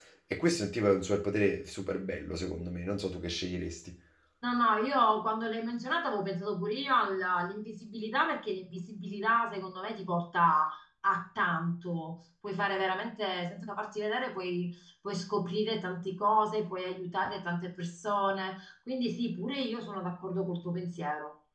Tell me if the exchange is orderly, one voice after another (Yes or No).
Yes